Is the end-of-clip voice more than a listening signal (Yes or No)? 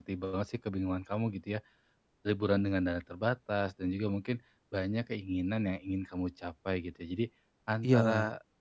No